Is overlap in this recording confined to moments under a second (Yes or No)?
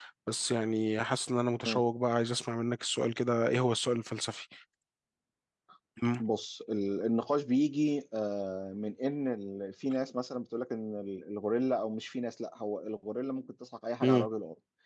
Yes